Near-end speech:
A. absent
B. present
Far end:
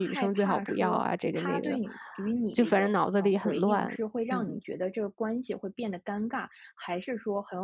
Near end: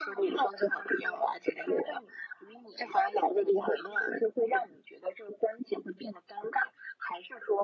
A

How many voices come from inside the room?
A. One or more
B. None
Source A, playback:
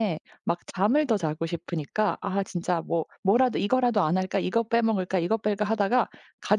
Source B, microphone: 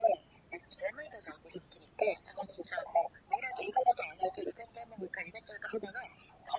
B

